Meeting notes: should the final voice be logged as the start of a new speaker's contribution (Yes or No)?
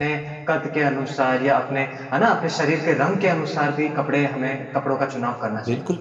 Yes